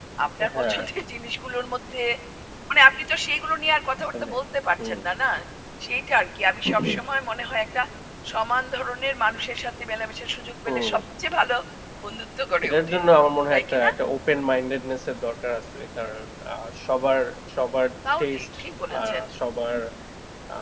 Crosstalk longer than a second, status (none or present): none